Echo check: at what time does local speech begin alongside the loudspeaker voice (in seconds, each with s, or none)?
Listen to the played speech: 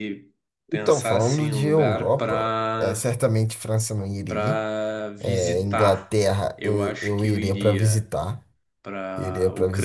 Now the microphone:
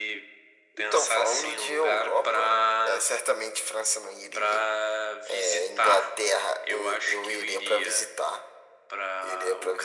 none